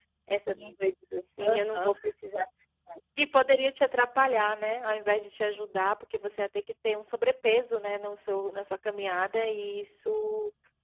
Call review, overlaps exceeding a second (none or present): none